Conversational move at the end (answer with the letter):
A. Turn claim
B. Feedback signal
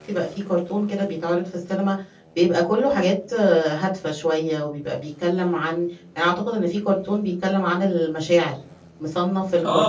A